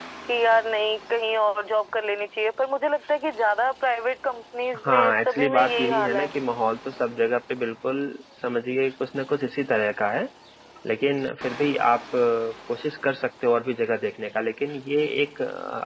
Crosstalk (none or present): present